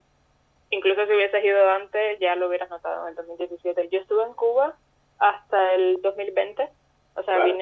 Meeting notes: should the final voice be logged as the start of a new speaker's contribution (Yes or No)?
No